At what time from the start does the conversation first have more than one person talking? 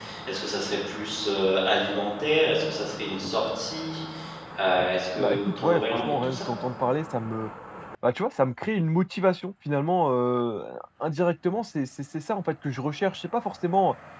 5.2 s

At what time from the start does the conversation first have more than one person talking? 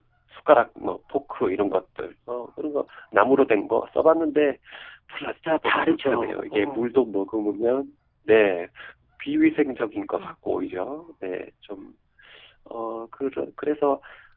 5.6 s

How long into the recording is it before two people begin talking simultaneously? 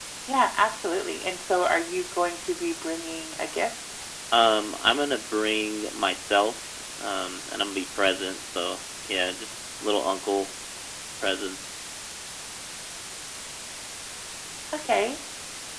none

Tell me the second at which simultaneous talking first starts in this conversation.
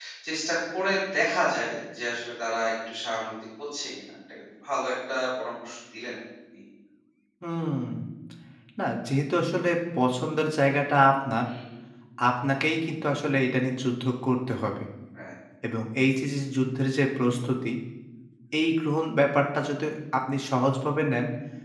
none

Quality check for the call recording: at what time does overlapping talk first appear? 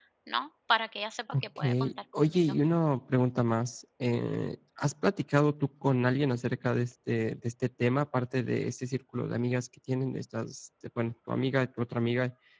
1.3 s

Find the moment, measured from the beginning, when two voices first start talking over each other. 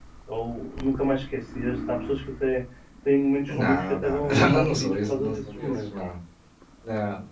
3.5 s

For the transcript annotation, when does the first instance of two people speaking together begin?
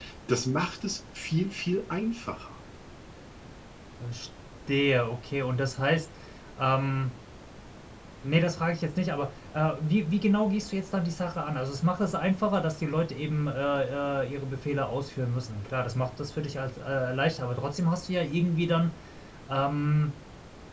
none

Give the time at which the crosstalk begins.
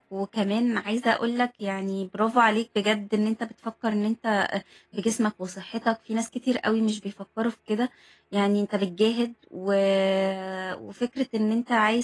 none

